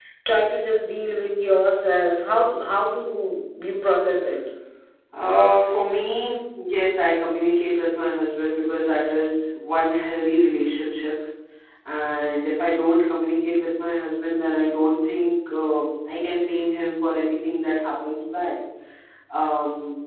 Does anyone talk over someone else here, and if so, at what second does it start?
none

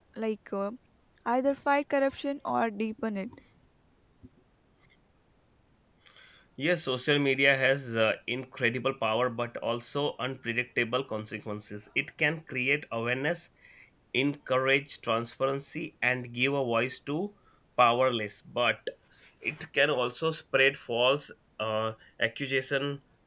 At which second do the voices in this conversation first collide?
none

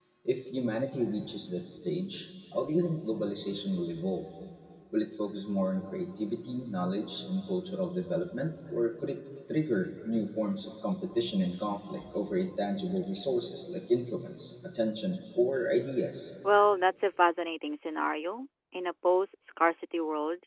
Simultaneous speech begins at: none

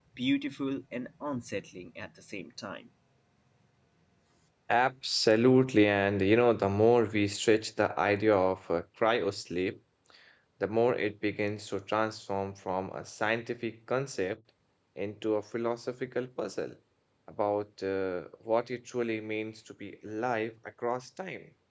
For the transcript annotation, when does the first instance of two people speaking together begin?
none

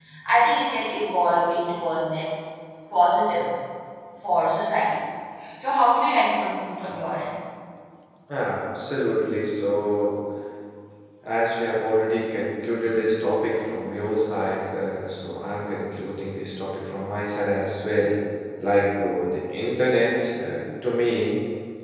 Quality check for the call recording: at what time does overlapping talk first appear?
none

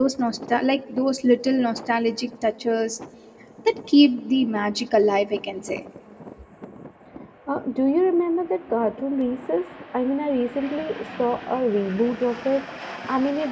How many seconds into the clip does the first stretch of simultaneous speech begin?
none

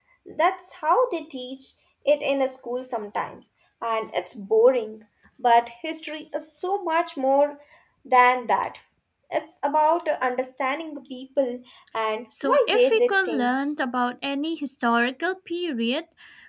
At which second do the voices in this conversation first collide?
12.3 s

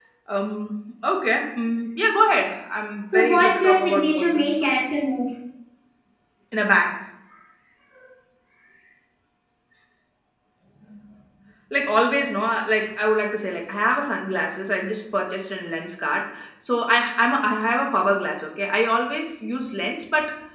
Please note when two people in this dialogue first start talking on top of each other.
3.1 s

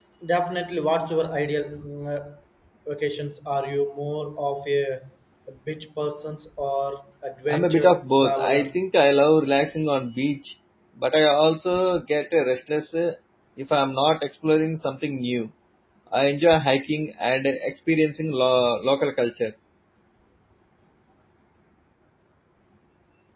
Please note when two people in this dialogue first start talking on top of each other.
7.5 s

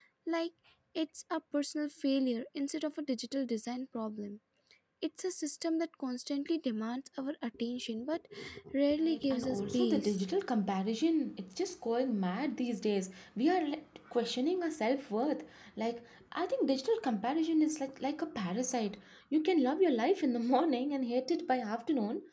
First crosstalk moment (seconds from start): 9.0 s

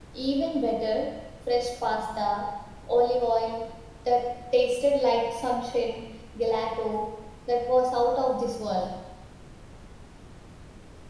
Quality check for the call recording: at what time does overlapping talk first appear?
none

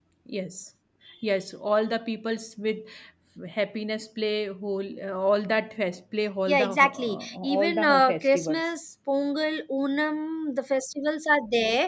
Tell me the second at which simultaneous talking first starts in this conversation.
6.5 s

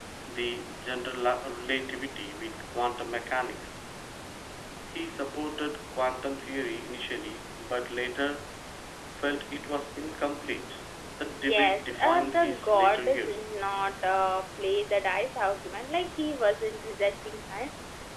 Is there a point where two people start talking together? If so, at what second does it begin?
11.4 s

